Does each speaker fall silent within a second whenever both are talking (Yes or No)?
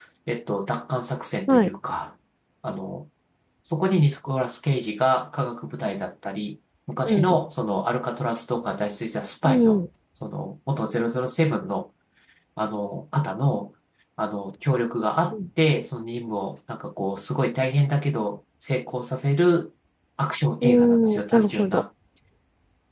No